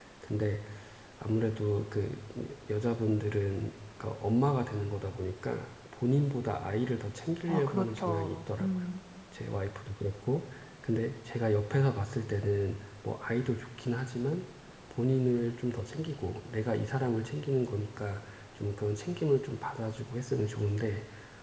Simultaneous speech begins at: 7.5 s

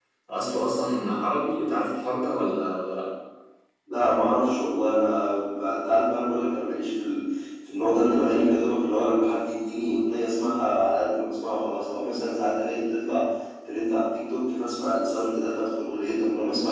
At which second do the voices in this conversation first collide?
none

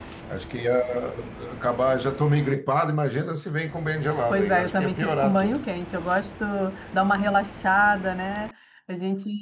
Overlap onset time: 4.3 s

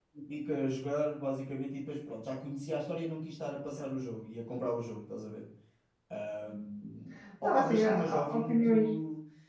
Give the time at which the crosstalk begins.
7.4 s

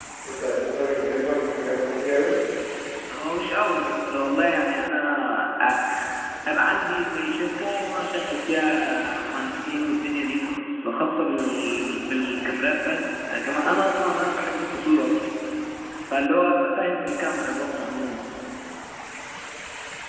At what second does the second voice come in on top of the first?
none

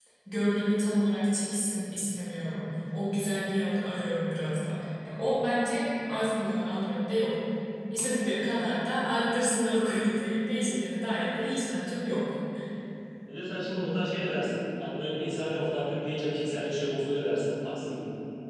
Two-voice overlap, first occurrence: none

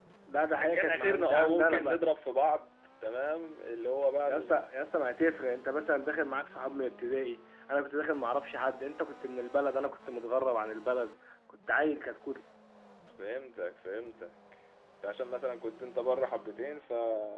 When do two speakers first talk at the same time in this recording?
0.8 s

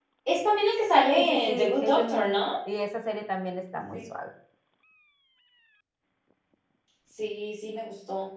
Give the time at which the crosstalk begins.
1.1 s

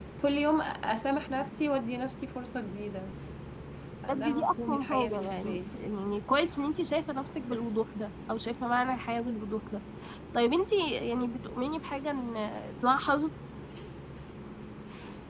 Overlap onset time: 4.1 s

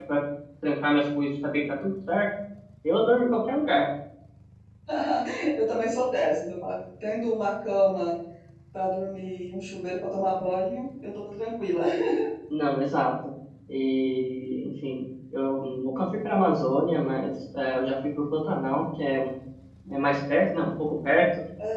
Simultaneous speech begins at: none

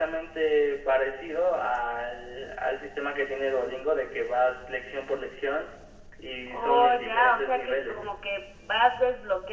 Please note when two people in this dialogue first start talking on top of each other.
6.5 s

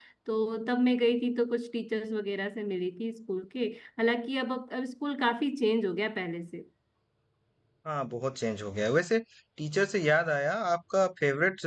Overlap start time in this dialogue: none

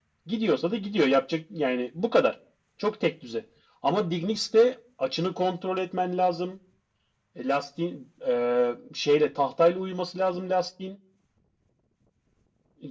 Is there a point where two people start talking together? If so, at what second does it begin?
none

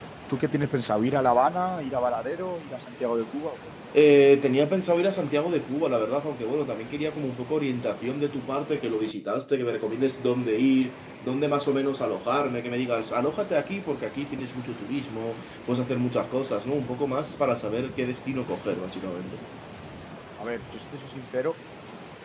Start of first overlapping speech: none

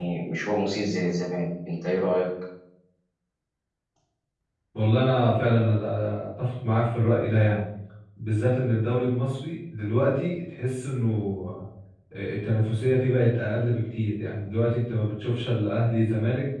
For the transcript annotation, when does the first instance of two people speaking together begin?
none

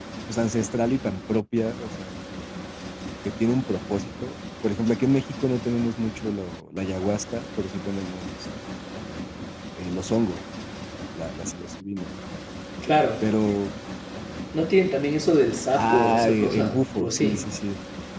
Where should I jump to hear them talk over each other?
15.8 s

